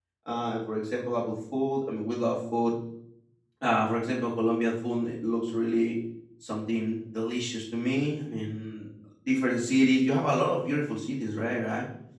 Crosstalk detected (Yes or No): No